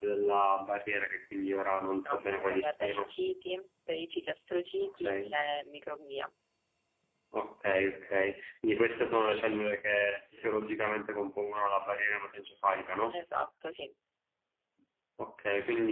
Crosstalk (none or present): present